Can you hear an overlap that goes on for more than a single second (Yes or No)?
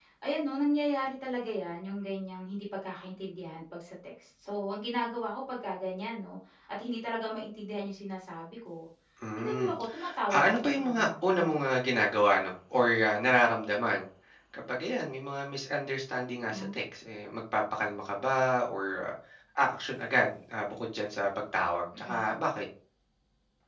Yes